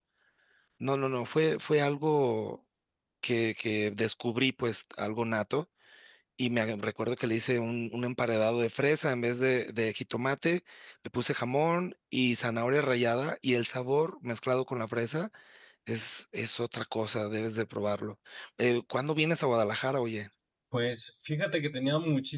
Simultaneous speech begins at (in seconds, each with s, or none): none